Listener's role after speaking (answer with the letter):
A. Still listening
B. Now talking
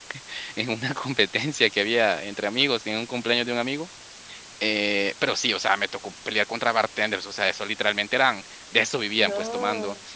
A